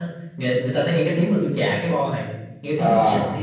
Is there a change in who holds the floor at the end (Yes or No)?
No